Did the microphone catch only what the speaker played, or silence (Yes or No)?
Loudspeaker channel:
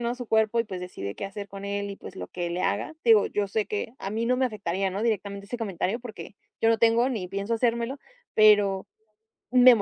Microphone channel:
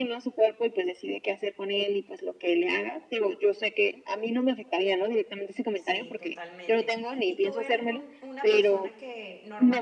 No